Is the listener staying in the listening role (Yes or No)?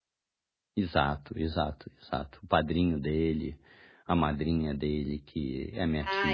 No